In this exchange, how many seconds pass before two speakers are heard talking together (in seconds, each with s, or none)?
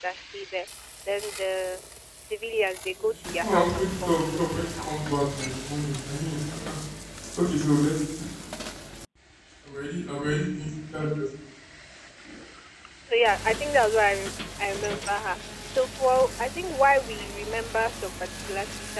3.0 s